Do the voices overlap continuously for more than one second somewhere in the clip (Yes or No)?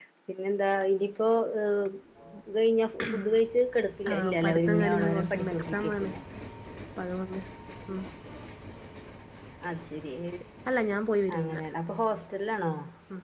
Yes